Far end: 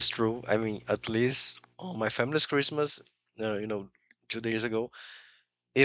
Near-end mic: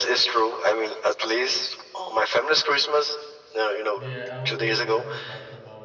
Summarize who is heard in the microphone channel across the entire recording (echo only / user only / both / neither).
both